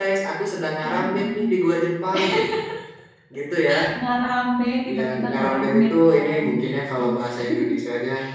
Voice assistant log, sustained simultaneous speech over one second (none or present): present